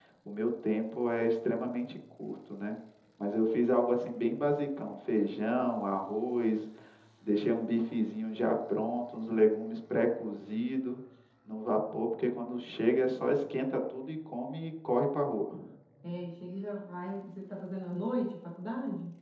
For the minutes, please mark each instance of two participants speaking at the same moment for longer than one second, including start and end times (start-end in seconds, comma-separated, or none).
none